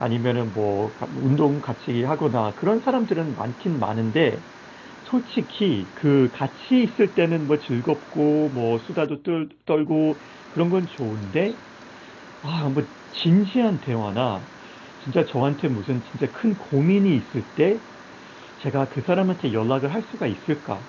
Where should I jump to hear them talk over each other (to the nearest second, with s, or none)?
none